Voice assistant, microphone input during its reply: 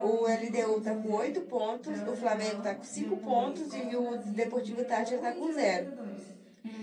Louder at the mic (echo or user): user